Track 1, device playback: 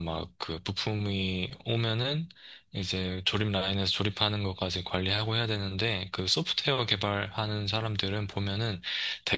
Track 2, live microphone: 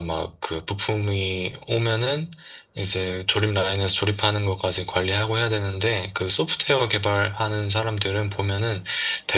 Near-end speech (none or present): none